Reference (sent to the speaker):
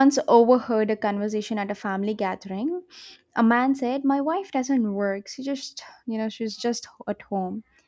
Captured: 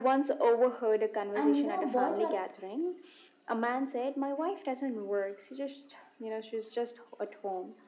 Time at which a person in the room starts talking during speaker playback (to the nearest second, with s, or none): 1 s